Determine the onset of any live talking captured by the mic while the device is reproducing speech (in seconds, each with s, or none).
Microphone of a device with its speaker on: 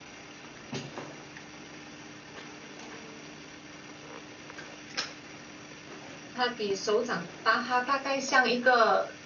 6.3 s